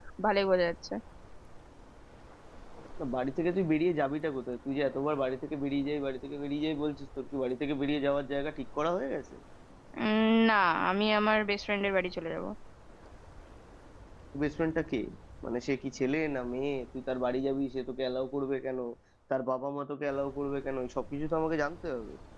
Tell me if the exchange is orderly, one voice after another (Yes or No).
Yes